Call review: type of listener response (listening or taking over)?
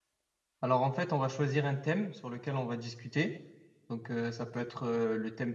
listening